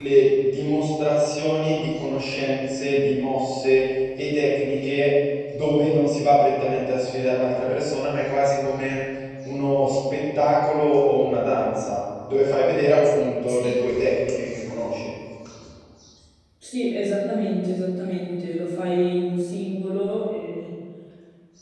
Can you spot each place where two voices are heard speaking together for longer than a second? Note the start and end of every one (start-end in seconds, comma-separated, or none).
none